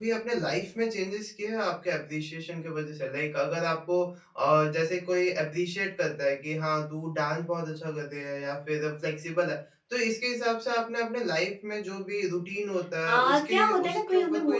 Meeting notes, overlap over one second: present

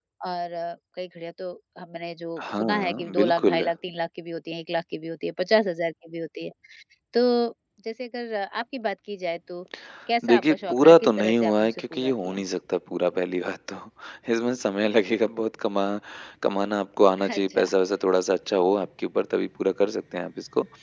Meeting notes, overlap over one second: present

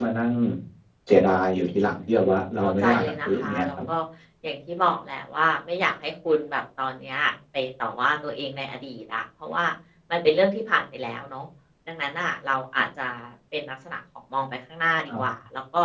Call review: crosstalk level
present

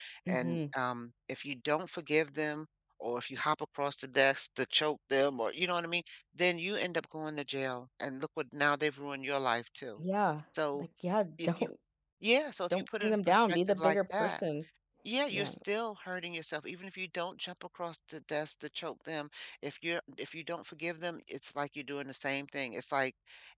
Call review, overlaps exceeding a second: present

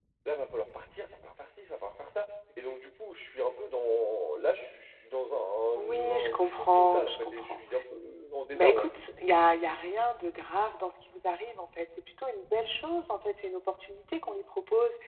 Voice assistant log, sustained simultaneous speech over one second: present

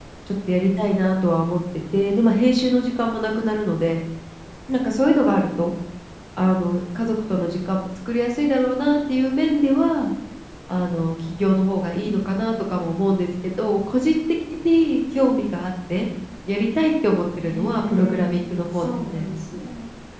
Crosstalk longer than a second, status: present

